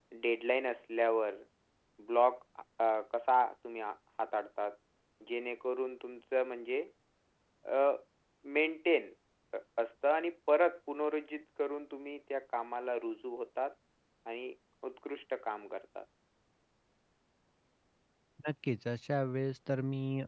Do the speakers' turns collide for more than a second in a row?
No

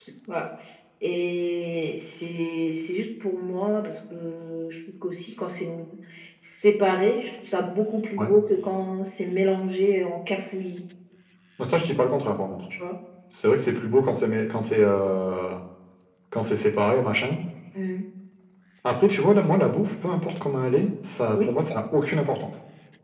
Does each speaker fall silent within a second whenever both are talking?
Yes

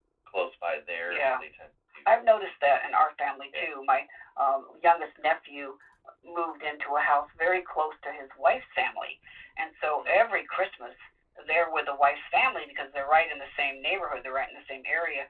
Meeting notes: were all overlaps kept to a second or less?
Yes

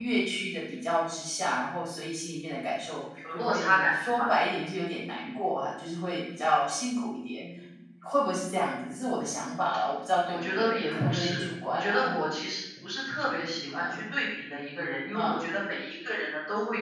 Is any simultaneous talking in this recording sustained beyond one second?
Yes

